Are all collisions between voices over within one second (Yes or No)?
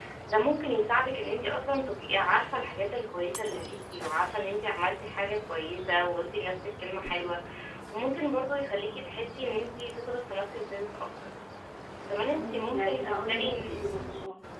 No